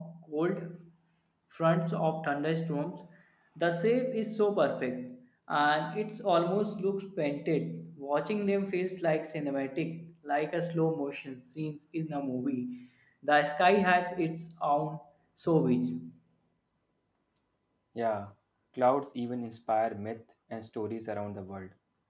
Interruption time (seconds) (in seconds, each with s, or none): none